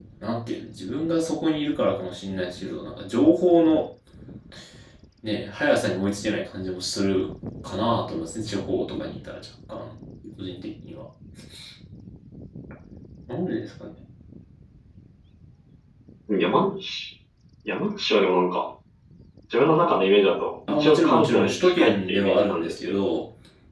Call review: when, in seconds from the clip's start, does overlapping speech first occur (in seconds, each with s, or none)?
20.7 s